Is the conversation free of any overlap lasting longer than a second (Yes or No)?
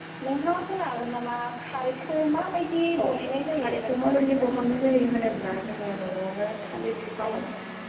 No